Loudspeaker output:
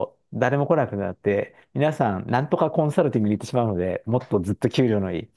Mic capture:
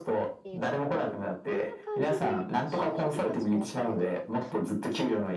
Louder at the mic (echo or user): echo